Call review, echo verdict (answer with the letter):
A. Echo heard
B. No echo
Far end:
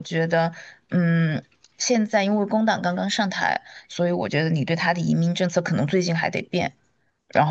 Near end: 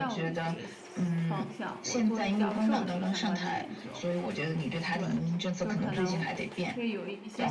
A